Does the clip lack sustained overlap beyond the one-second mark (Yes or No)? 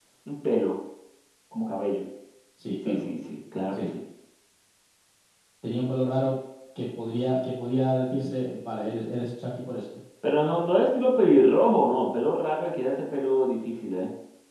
Yes